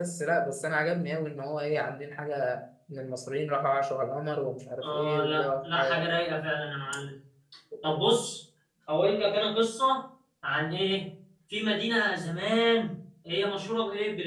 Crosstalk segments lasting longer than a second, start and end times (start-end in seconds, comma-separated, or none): 4.8-6.2